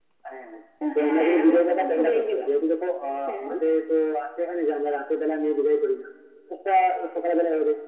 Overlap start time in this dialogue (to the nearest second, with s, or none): 1 s